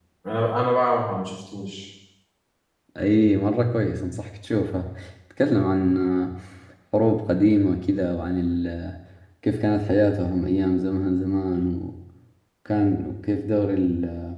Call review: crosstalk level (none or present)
none